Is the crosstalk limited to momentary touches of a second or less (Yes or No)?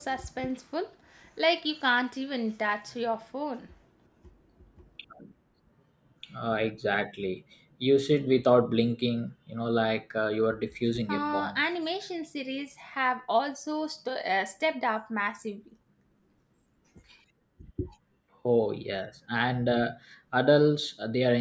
Yes